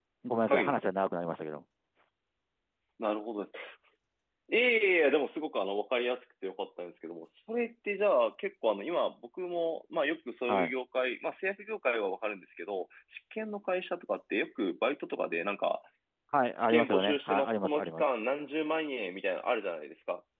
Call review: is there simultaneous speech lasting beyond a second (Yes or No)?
Yes